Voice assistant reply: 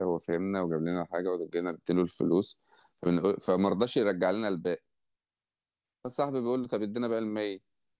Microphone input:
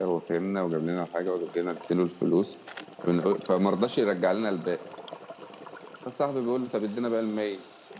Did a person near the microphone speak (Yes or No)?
No